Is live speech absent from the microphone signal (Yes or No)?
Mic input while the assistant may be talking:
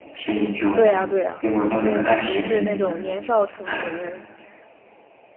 No